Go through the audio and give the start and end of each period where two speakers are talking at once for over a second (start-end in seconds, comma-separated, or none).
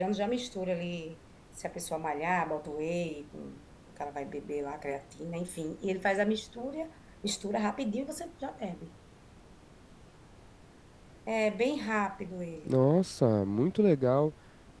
none